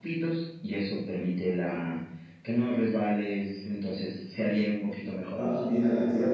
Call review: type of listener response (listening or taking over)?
taking over